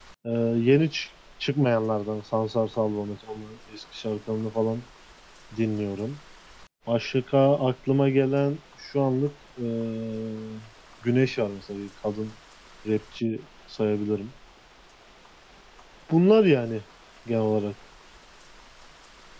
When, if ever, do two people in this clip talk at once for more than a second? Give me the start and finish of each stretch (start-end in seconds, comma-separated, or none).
none